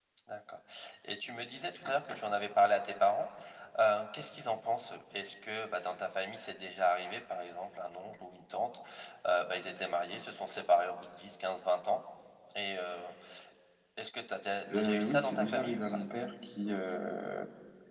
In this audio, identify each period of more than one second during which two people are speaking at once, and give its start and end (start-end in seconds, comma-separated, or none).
14.7-16.0